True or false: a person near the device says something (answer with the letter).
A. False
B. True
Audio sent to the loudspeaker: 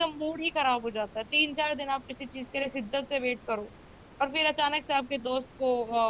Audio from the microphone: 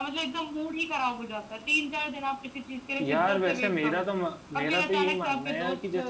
B